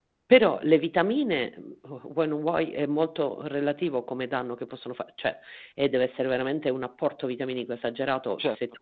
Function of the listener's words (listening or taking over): listening